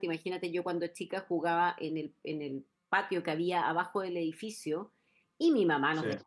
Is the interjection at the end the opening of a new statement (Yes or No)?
No